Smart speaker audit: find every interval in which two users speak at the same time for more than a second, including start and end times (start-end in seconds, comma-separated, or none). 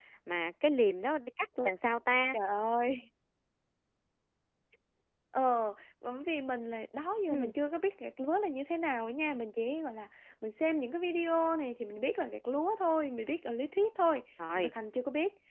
none